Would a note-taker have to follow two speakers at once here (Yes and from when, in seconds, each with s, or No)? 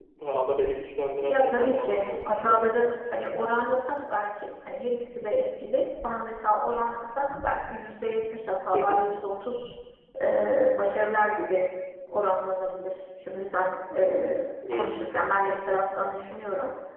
Yes, from 1.3 s